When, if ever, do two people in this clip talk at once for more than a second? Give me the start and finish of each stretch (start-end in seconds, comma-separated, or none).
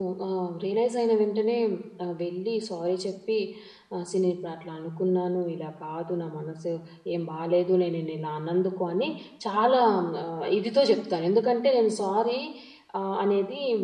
none